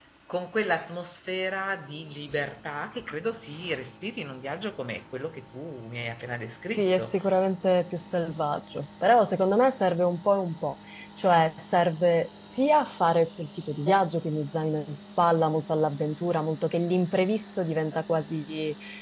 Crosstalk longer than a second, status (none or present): none